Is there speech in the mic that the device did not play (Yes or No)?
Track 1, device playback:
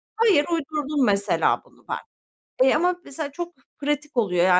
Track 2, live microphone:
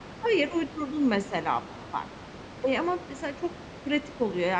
No